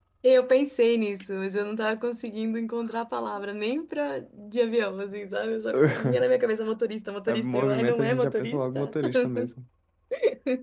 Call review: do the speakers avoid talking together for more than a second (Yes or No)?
No